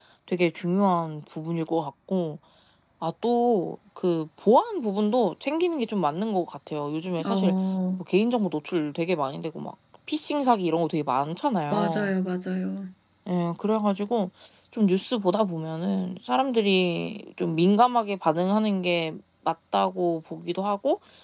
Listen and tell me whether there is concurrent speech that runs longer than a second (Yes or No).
No